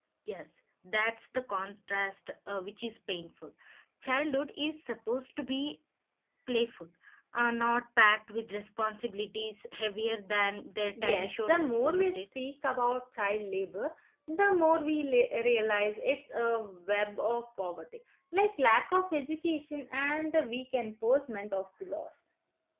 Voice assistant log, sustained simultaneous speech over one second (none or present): present